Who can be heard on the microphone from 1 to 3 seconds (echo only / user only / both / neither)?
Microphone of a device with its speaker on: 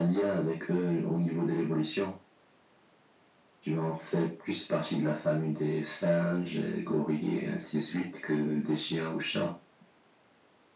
echo only